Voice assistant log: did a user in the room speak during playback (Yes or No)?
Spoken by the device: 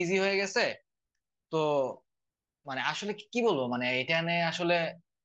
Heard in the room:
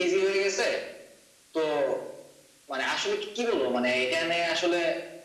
No